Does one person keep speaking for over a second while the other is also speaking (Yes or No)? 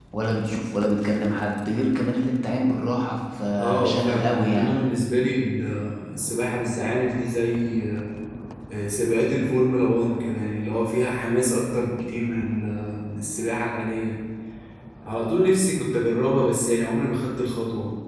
Yes